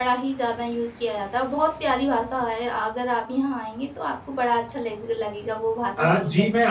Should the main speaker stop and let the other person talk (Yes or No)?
Yes